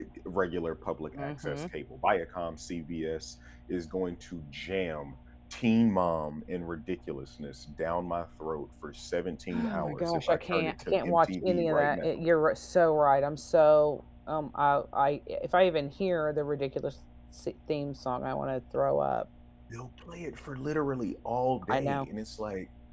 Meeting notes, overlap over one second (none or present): present